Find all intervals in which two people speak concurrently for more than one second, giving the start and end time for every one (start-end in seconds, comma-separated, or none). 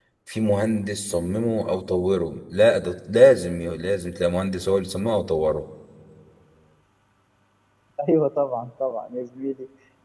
none